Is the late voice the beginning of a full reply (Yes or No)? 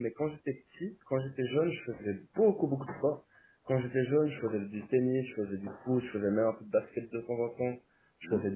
No